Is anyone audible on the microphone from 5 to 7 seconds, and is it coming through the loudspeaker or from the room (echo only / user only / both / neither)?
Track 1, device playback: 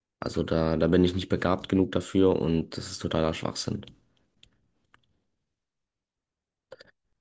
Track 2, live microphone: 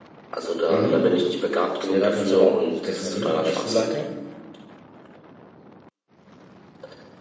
neither